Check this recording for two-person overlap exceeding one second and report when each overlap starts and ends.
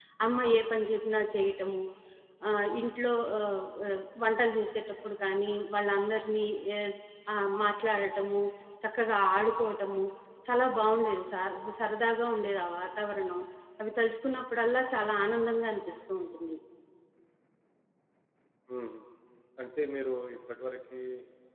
none

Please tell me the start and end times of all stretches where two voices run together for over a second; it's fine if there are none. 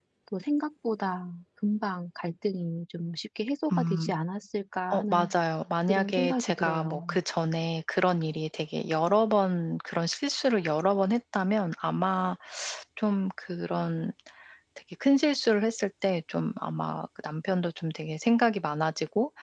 5.9-7.2

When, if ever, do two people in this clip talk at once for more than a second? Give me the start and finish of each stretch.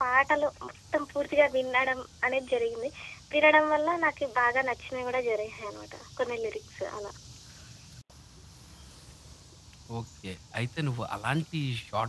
none

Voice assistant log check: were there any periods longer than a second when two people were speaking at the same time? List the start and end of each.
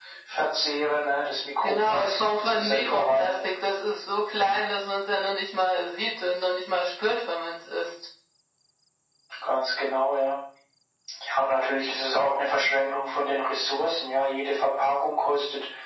1.6-3.3

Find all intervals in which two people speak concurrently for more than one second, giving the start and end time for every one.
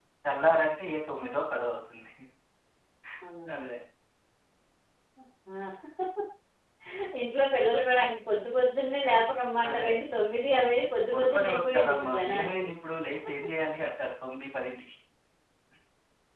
11.1-12.6

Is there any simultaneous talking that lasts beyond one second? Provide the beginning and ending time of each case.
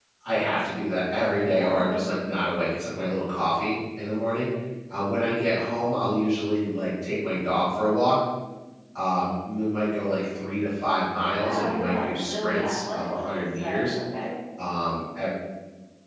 11.3-13.9

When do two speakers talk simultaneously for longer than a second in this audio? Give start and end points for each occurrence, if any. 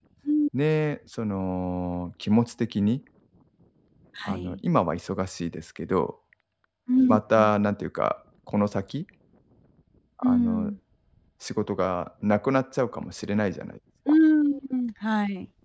none

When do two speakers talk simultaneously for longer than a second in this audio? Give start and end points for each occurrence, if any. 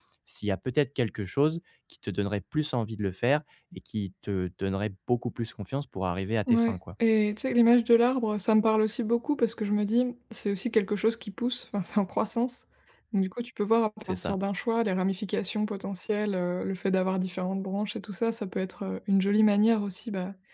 none

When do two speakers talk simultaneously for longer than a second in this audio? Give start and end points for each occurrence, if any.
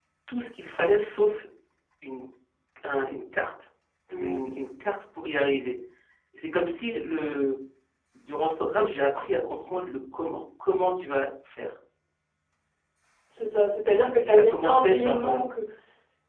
14.2-15.4

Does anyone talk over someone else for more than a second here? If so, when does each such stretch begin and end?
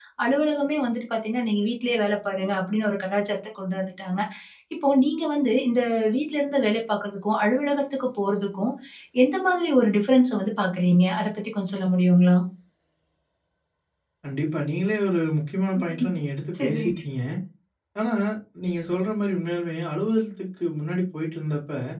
none

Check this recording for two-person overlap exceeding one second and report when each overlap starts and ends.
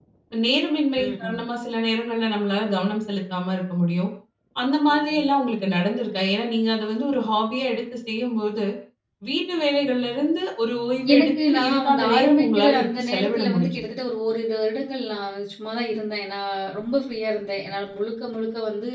11.1-13.8

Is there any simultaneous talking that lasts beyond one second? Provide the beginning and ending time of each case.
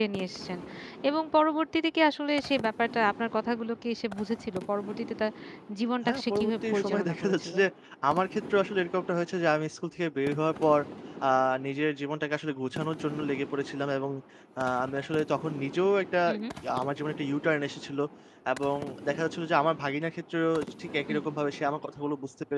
6.0-7.5

